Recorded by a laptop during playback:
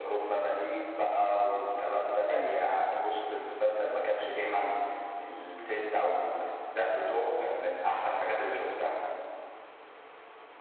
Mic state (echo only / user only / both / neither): both